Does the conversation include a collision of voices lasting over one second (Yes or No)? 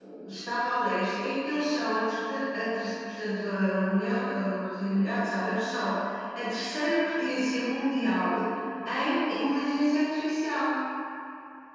No